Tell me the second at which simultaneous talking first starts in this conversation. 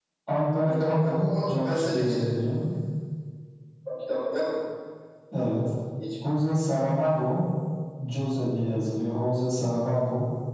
0.6 s

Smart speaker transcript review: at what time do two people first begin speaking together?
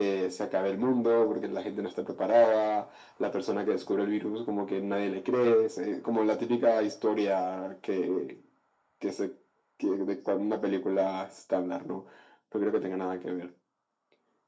none

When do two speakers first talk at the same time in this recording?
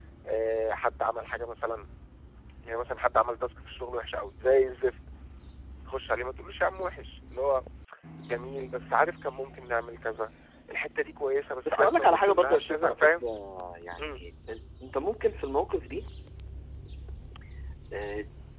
11.7 s

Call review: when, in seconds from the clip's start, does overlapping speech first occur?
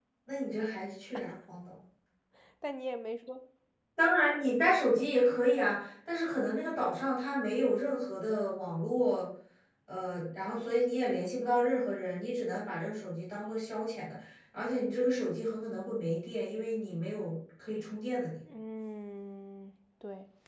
none

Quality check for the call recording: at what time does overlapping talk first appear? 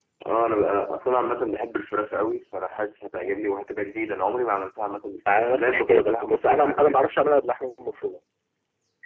5.3 s

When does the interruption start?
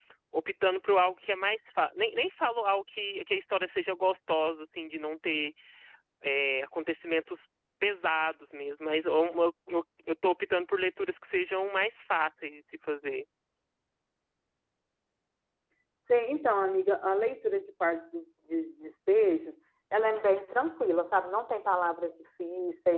none

